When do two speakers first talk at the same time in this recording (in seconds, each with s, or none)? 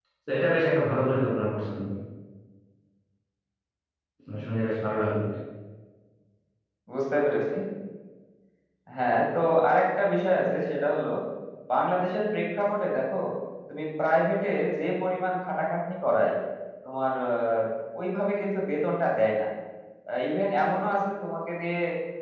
none